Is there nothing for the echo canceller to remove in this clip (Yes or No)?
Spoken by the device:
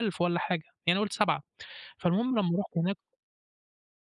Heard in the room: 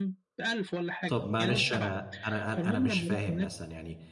No